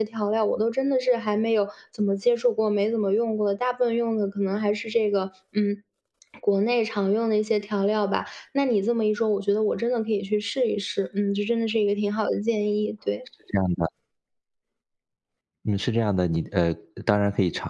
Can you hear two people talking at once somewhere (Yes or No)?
No